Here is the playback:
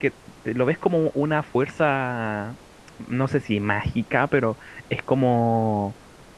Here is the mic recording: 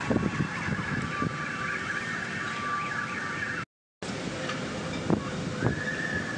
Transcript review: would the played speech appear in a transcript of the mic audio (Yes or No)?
No